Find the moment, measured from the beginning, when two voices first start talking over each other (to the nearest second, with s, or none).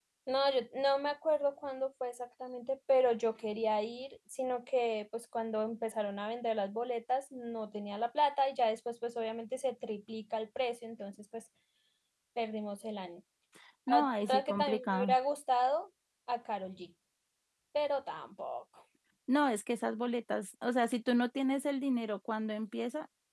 14 s